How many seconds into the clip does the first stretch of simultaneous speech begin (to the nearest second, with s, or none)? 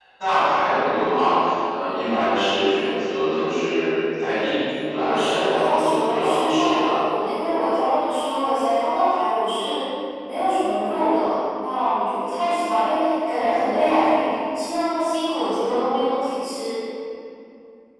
5 s